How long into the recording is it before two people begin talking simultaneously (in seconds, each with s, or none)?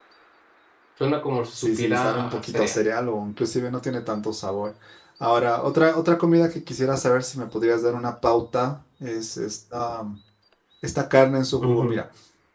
1.6 s